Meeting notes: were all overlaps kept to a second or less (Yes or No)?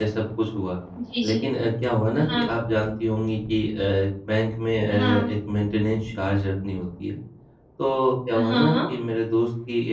Yes